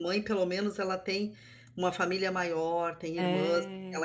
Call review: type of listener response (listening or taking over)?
listening